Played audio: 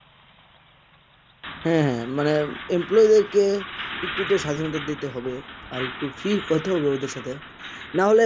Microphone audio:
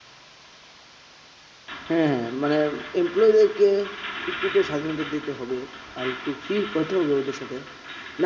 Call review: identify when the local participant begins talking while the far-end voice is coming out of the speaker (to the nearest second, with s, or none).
none